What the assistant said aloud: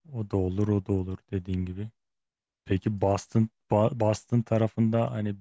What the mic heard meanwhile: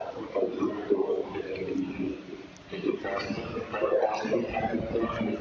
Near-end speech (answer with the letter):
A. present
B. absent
B